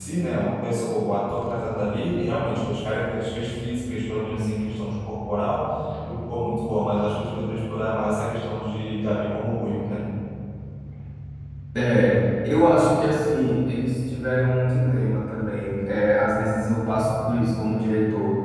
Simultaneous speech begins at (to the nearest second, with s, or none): none